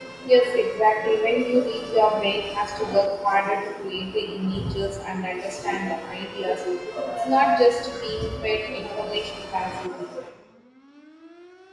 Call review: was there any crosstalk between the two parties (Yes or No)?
No